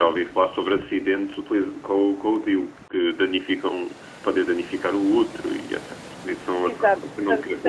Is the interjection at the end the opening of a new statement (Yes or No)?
Yes